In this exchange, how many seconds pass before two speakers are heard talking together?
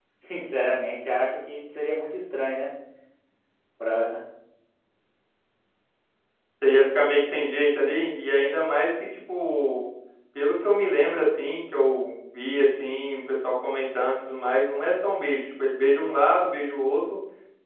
none

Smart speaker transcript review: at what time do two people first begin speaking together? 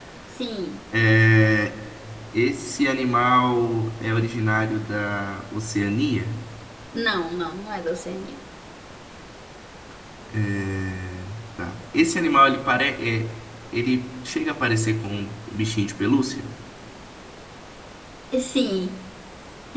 none

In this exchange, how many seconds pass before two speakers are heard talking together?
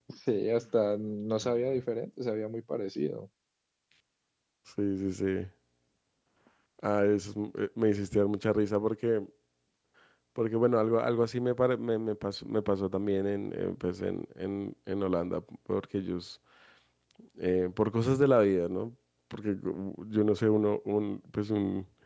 none

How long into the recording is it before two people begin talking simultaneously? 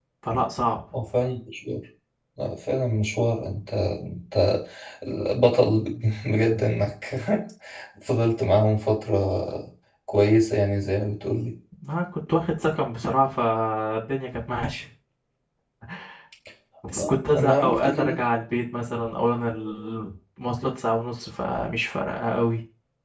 17.0 s

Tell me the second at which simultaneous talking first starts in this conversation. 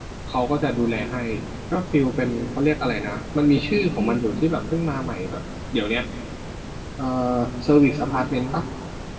none

